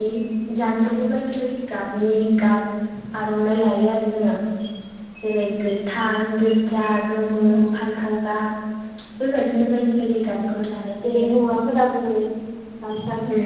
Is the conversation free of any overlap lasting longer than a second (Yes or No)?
Yes